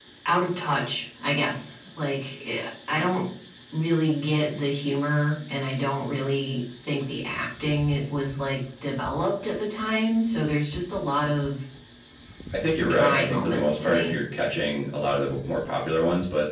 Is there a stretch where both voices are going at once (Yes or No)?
Yes